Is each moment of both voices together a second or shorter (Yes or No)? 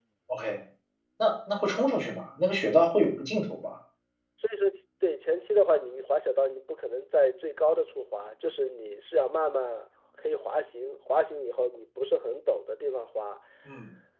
Yes